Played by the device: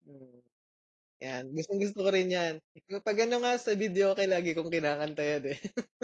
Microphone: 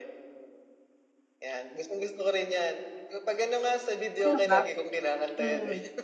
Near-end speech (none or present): present